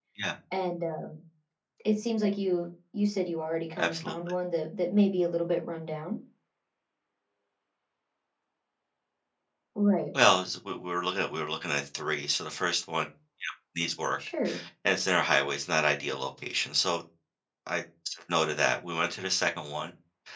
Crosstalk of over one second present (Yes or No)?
No